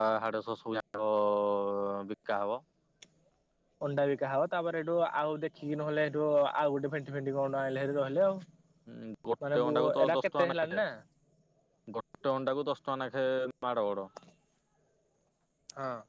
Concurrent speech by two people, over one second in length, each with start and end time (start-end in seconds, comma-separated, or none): 9.5-10.8